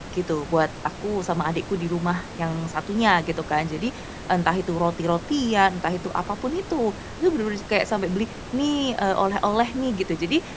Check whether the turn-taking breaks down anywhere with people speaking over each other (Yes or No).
No